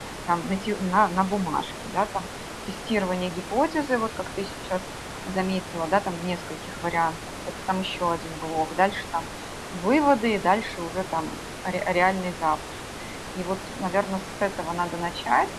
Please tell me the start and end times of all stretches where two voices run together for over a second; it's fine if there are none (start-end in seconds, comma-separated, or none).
none